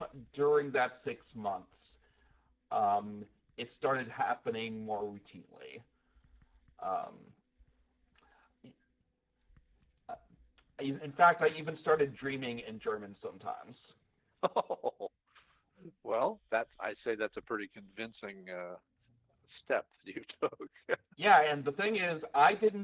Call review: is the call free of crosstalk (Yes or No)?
Yes